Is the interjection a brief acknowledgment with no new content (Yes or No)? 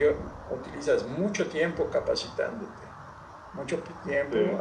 Yes